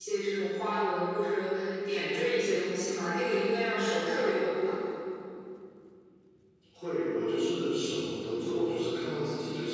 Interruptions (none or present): none